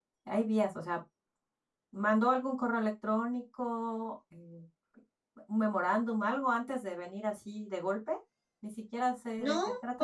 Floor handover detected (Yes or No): Yes